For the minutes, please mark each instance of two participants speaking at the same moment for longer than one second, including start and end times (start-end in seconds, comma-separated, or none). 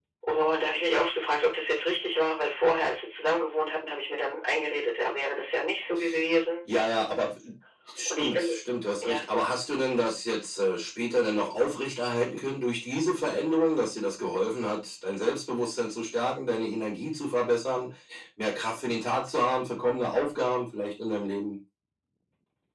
none